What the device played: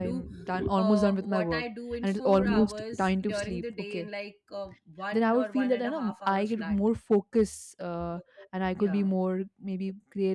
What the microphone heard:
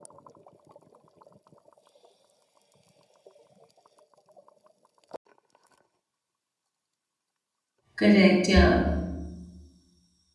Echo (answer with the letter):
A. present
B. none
B